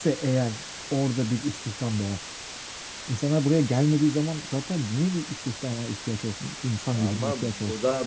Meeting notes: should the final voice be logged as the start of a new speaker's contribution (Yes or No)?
Yes